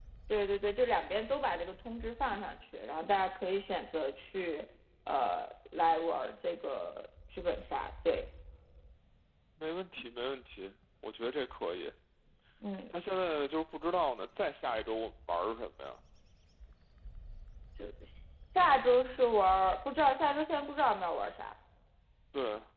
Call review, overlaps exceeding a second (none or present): none